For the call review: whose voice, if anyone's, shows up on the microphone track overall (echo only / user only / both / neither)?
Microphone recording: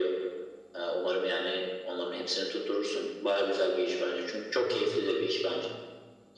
both